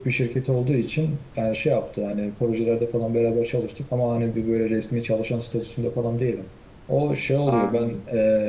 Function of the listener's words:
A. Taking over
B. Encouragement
B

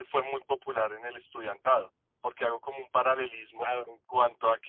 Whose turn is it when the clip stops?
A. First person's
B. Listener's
A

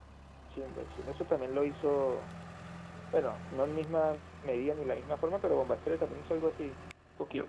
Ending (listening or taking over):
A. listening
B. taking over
B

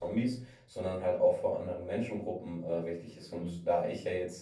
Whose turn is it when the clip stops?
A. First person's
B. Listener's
A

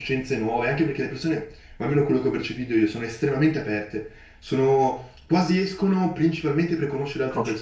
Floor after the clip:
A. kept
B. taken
B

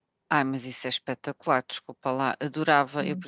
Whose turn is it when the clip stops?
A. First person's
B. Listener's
A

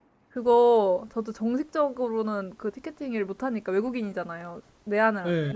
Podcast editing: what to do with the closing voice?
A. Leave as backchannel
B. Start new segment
A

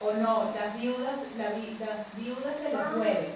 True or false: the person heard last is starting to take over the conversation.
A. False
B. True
B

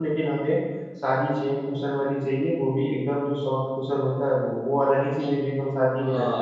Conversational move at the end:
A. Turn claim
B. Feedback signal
A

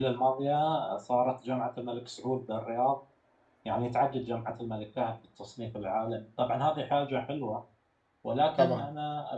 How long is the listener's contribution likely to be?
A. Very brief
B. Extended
A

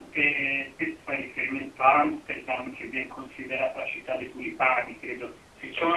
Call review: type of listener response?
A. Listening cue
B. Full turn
A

